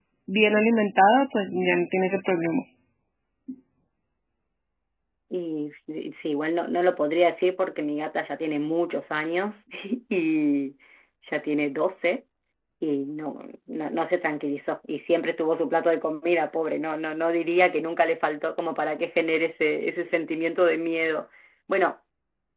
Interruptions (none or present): none